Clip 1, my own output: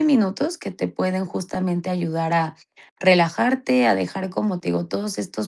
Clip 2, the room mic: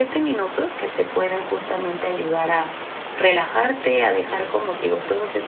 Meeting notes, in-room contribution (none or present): none